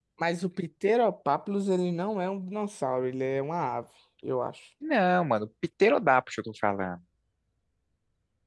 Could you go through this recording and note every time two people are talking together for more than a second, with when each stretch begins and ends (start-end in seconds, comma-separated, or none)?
none